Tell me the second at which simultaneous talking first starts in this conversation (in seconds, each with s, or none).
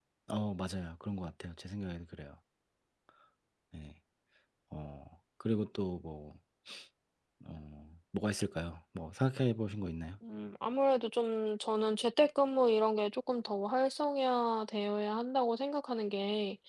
none